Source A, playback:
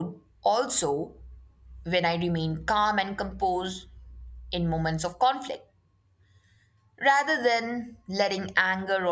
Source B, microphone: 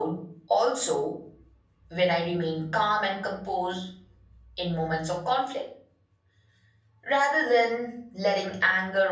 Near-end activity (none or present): none